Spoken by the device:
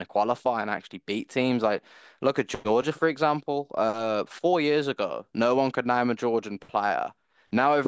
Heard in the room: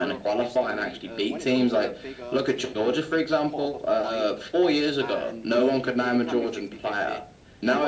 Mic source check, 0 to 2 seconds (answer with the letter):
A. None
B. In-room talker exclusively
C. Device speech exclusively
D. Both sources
D